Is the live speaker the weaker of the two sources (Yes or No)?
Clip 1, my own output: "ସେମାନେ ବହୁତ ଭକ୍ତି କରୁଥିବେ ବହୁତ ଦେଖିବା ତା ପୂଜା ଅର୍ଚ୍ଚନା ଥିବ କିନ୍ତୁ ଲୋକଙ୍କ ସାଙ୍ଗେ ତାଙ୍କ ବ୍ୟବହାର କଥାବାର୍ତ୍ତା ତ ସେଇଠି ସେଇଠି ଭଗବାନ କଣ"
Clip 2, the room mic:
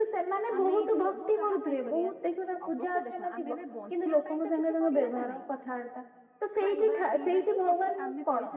Yes